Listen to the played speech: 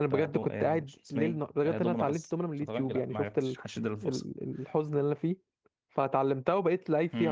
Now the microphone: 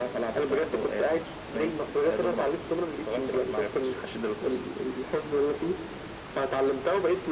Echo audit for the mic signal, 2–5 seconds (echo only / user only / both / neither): echo only